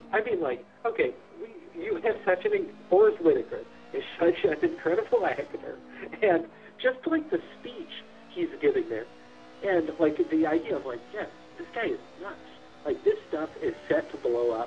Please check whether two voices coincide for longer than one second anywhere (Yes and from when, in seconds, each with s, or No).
No